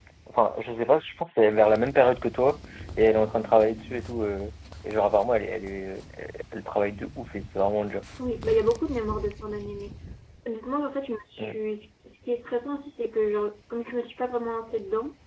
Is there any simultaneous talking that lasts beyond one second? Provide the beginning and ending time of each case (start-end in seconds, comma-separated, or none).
none